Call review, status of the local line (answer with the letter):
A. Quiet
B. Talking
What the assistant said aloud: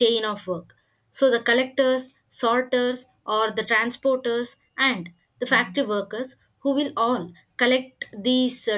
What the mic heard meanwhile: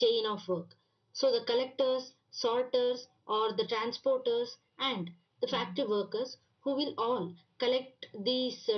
A